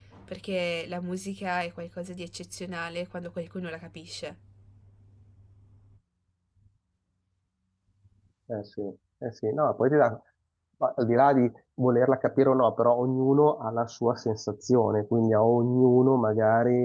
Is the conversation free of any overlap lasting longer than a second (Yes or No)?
Yes